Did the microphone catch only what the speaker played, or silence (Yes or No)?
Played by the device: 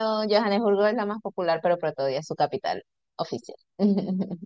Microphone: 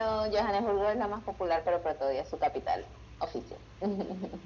Yes